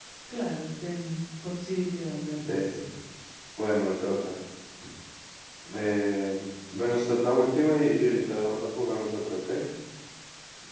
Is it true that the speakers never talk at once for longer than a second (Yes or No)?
Yes